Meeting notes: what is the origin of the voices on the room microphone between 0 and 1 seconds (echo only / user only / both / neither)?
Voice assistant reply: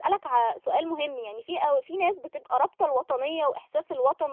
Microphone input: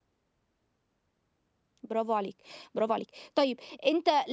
neither